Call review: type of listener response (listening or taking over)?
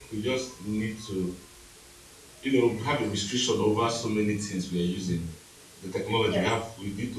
listening